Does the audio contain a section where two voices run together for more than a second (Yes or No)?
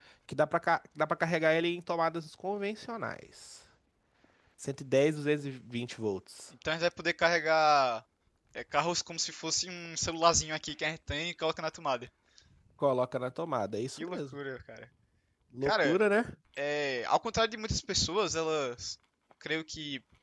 No